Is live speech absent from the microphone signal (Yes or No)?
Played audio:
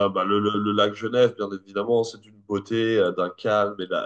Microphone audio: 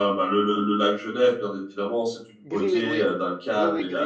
No